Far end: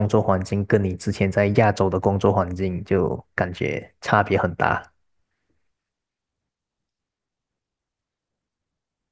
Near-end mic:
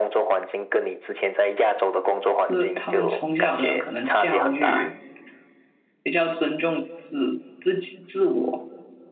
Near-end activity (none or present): present